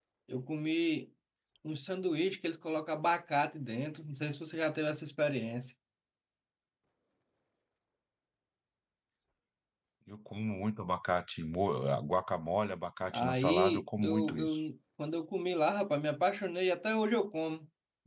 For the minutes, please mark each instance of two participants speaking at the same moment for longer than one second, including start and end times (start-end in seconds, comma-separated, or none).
13.1-14.6